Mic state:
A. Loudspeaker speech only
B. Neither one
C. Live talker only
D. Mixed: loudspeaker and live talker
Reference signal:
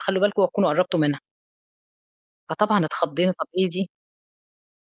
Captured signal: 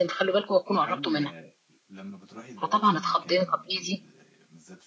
D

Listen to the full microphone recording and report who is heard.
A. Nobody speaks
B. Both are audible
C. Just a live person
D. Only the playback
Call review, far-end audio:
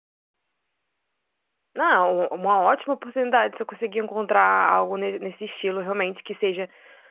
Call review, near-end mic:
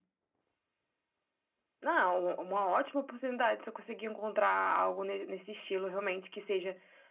D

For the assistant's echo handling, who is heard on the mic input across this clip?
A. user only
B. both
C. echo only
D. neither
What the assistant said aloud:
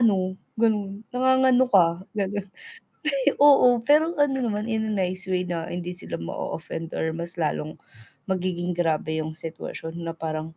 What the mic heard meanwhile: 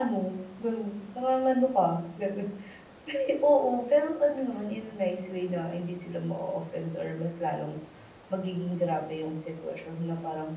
C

